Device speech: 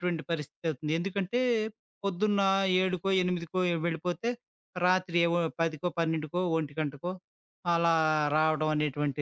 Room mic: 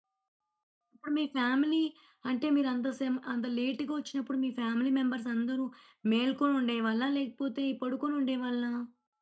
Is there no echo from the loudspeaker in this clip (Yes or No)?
Yes